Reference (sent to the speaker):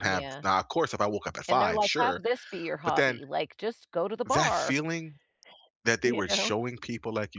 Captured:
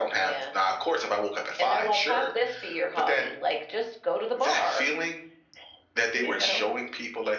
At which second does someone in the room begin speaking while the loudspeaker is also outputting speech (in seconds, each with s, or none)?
none